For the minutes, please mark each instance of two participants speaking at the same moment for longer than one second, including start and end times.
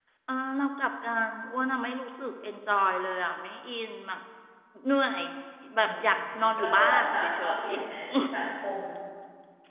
5.8-7.7

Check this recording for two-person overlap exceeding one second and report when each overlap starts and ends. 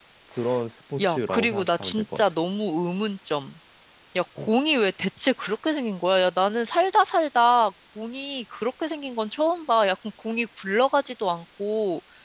1.0-2.2

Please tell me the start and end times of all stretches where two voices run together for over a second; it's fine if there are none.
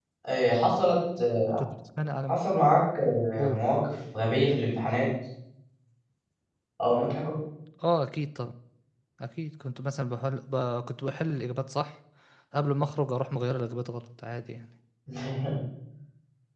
none

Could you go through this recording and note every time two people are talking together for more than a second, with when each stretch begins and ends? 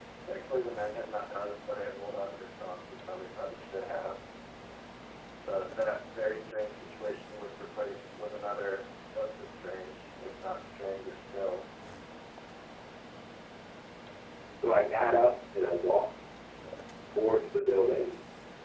none

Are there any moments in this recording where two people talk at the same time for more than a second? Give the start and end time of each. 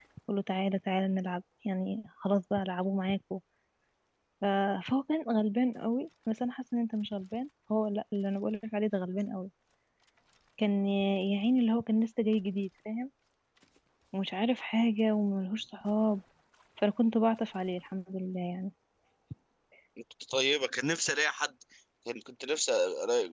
none

